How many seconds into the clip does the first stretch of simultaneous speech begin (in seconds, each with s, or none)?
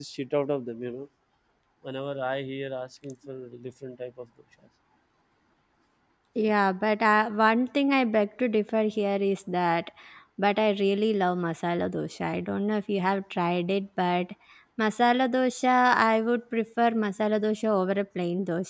none